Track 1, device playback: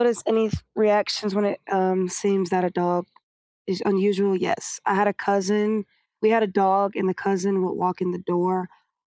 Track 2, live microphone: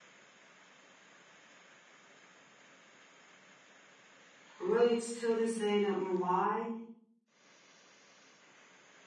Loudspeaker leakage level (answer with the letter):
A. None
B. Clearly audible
A